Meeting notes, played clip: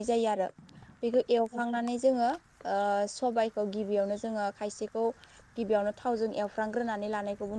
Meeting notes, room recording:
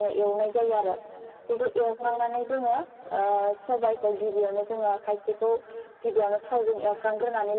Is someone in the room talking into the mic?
No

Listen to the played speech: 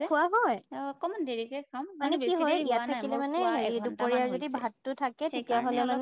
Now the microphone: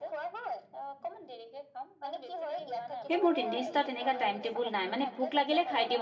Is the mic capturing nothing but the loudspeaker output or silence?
No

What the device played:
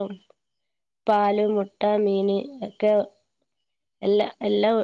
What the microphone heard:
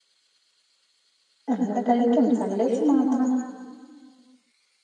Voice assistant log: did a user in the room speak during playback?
Yes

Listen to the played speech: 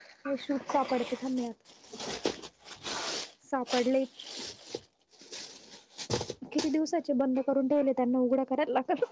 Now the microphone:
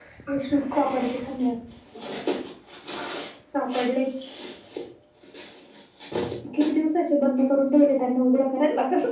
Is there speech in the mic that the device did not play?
No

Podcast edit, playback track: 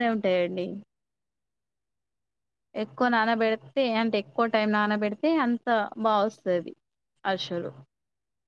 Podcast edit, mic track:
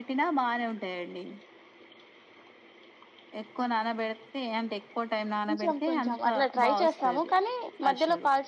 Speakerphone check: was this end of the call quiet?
No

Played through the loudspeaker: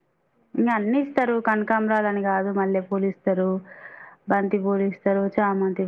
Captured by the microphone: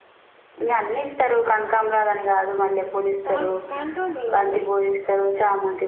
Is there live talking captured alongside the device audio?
Yes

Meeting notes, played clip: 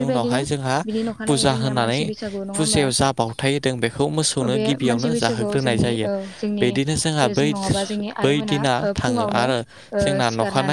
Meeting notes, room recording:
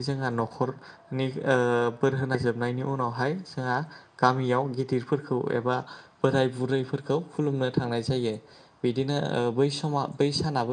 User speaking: Yes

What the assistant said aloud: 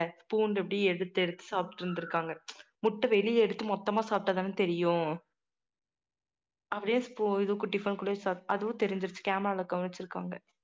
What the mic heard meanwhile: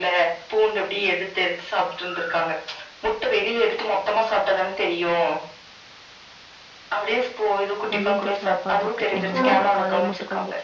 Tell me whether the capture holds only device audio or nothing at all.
No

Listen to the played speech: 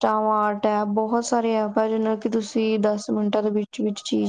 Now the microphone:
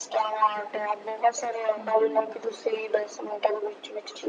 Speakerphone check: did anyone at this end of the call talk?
Yes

